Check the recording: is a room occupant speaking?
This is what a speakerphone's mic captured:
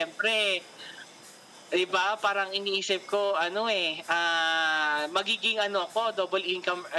No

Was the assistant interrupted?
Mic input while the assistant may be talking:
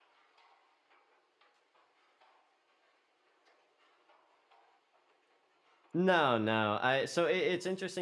Yes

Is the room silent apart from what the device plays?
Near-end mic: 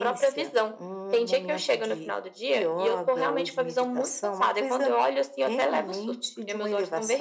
Yes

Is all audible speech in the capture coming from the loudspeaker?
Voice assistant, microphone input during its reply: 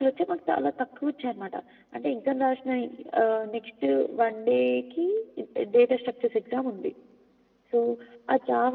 Yes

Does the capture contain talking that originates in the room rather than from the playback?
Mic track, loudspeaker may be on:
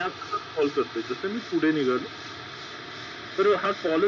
No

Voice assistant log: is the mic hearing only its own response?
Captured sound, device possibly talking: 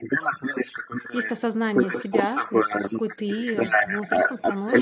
No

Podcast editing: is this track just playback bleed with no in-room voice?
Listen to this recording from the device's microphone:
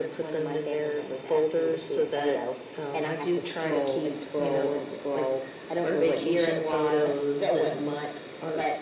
Yes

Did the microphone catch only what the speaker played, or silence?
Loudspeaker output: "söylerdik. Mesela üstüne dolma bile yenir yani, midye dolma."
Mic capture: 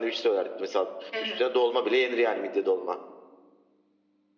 No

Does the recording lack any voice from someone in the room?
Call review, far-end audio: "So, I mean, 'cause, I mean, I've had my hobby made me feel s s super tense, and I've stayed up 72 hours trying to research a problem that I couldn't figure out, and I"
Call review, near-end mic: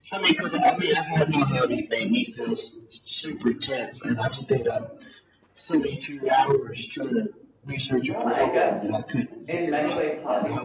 No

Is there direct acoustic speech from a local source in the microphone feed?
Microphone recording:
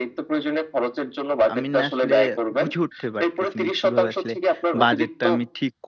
Yes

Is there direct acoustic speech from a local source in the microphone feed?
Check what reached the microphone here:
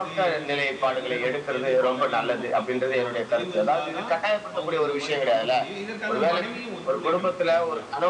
Yes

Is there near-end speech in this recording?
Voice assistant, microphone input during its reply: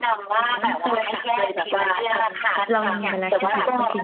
Yes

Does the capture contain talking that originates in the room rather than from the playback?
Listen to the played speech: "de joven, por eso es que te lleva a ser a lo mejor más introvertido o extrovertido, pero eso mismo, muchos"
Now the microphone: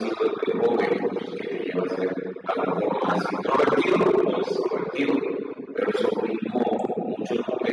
No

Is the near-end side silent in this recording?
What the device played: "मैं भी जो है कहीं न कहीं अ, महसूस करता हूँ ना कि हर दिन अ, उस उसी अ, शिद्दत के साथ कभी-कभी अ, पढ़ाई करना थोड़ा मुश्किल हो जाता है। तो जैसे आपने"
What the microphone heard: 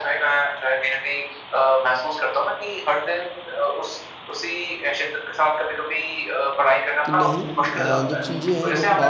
No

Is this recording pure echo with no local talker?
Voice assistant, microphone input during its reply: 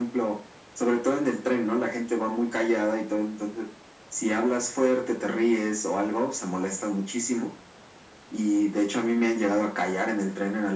Yes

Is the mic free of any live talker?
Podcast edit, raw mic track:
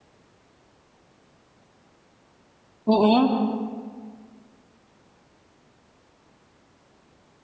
No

